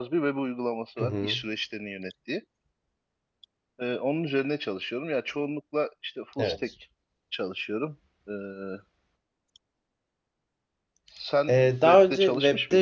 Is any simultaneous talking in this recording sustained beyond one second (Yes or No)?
Yes